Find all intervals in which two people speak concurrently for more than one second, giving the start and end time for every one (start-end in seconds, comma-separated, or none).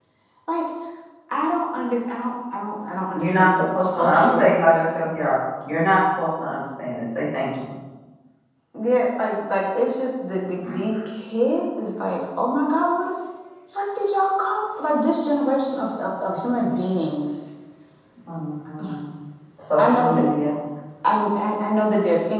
3.2-4.5